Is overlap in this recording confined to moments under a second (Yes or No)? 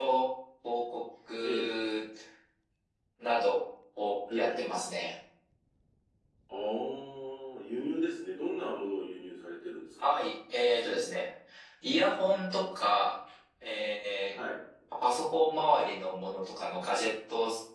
Yes